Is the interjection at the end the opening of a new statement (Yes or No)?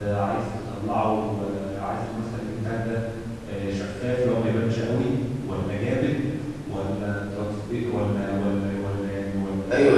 Yes